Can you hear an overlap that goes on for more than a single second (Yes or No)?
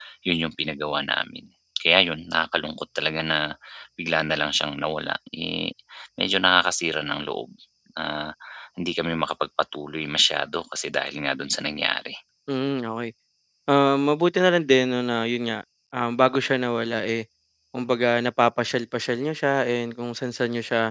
No